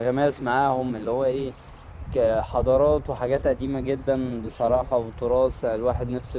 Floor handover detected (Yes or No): No